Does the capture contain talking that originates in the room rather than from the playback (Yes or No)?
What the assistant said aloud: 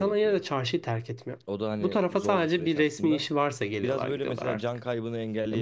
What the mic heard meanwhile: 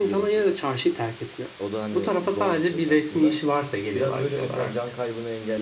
No